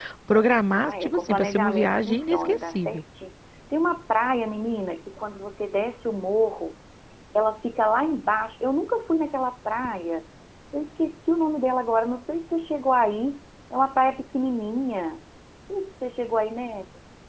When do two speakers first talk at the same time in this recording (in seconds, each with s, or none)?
0.7 s